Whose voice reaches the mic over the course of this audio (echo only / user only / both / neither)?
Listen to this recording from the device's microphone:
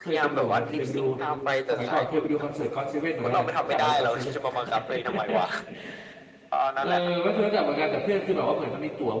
both